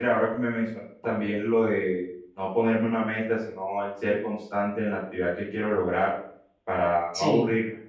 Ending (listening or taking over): listening